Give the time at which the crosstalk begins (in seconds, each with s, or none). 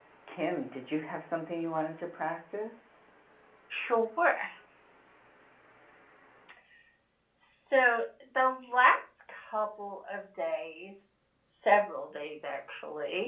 none